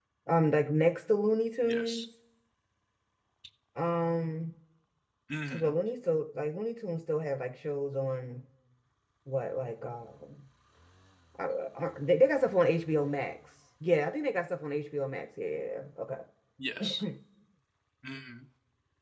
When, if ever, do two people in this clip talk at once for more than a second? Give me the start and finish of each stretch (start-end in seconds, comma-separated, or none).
none